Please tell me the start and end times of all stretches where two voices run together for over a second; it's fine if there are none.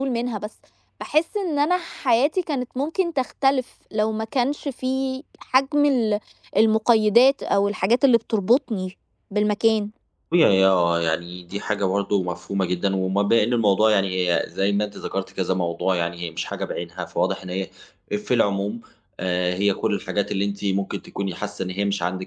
none

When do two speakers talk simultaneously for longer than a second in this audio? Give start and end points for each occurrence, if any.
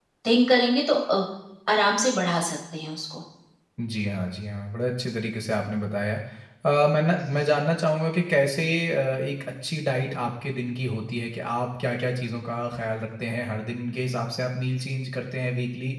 none

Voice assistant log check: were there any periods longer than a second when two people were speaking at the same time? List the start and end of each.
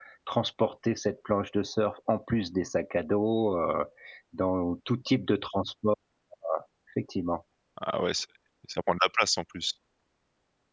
none

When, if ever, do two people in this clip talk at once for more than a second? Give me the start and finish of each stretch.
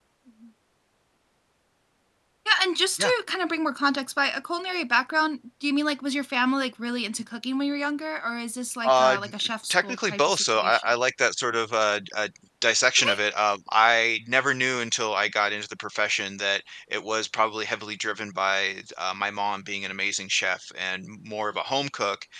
8.8-10.8

